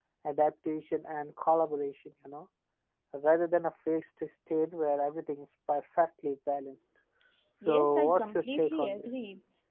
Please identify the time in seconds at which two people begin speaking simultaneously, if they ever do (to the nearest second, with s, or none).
8 s